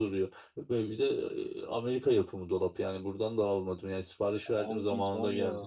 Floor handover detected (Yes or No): Yes